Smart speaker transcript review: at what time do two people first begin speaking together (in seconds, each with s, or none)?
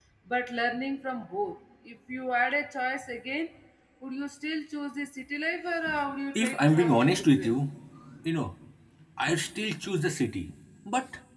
6.4 s